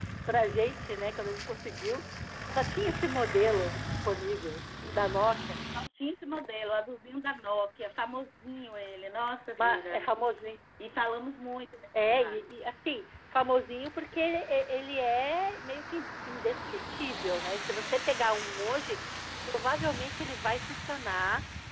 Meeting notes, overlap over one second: none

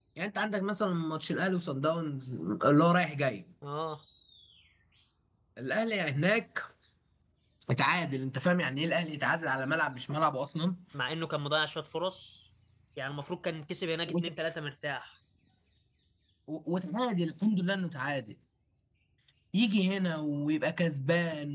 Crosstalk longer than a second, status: none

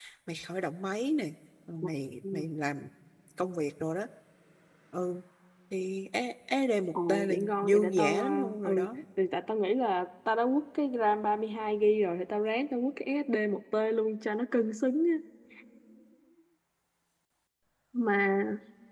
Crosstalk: present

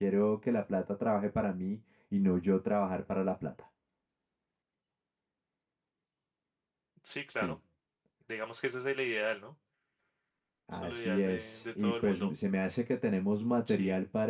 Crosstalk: present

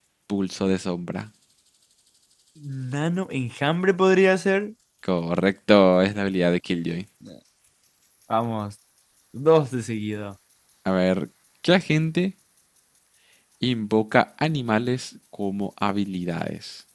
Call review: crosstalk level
none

